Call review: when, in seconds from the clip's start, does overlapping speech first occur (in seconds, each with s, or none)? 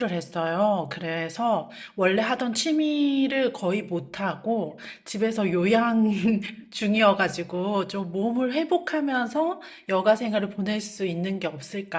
none